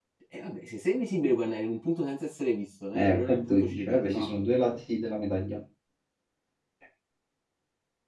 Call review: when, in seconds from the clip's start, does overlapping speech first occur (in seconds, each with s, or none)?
2.9 s